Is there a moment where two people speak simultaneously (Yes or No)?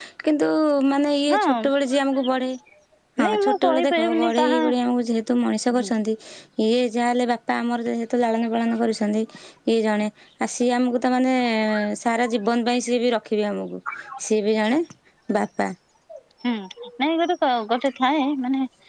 Yes